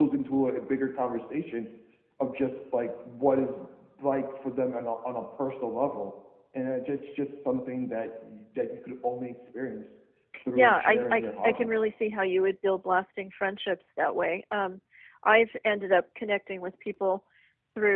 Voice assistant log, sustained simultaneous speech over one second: present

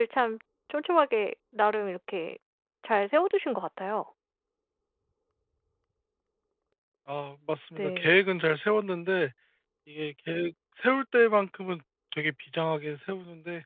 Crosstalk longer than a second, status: none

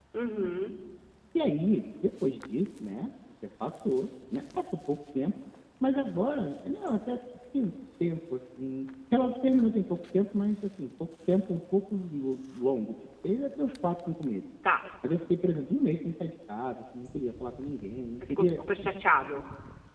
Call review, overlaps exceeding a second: none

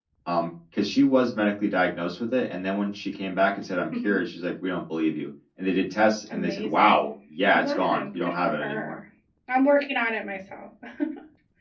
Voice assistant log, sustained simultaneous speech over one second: present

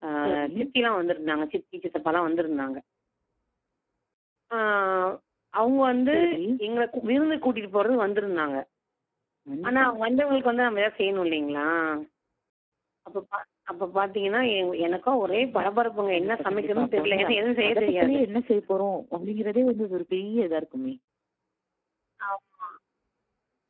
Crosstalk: present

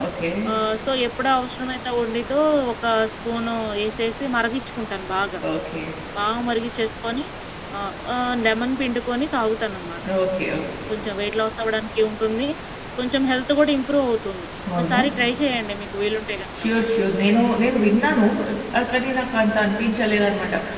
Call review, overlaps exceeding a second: none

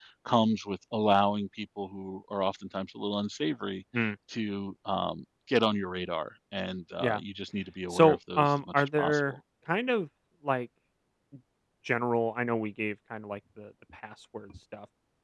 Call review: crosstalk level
present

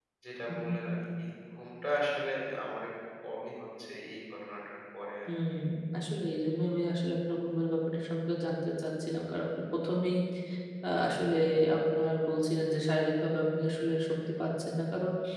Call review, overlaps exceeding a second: none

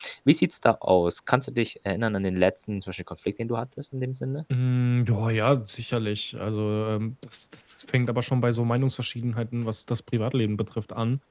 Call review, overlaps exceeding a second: none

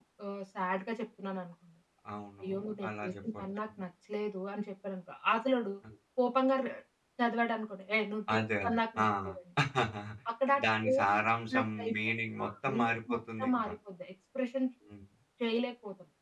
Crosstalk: present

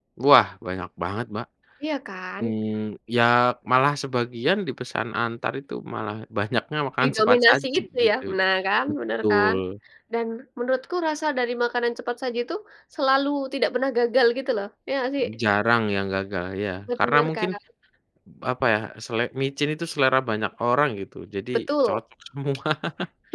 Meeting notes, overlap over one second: present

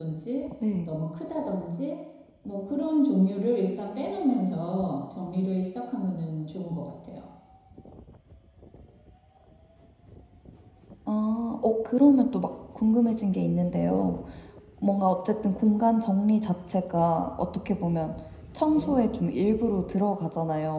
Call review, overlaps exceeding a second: none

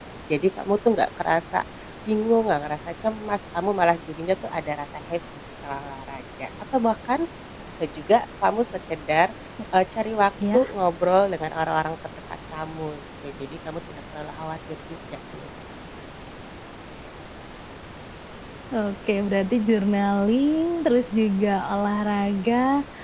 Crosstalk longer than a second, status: none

